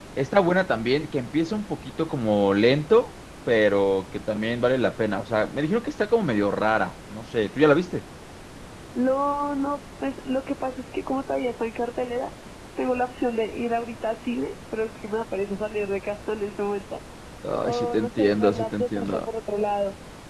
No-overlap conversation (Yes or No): No